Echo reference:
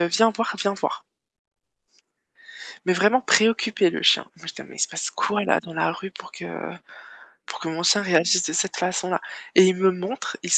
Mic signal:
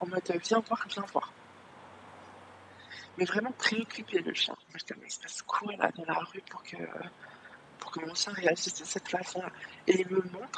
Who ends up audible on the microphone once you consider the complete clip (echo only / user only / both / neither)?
echo only